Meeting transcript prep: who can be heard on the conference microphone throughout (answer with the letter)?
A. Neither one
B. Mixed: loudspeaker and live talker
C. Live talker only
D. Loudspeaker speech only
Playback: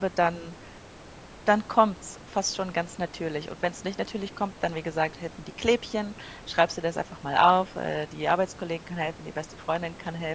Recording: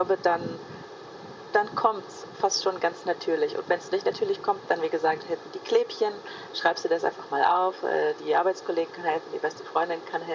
D